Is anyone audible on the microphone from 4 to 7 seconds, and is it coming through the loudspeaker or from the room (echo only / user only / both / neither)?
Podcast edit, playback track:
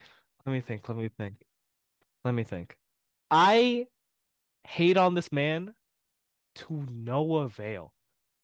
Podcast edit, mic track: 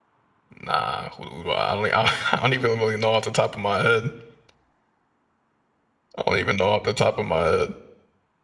user only